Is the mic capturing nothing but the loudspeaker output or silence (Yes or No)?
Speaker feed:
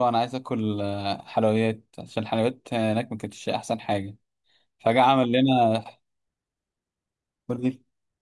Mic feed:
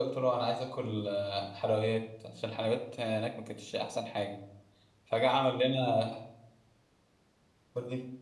Yes